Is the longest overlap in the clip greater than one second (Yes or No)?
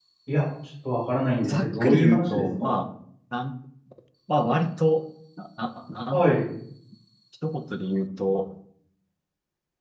Yes